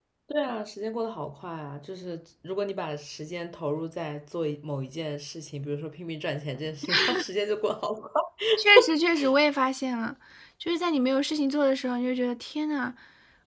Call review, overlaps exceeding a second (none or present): none